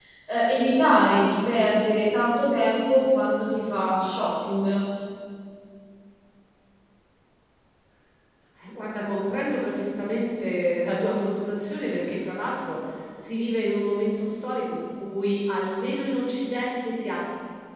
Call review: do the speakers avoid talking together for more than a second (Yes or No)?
Yes